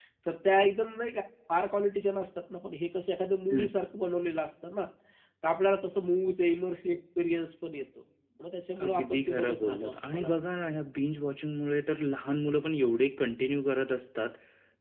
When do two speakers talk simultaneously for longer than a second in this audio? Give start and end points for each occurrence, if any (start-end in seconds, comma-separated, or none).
8.8-10.4